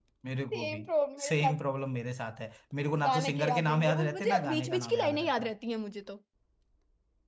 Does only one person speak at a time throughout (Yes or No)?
No